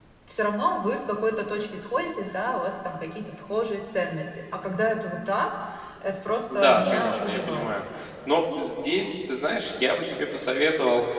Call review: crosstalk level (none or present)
present